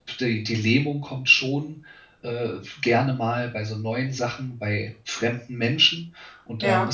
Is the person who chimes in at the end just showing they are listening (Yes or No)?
Yes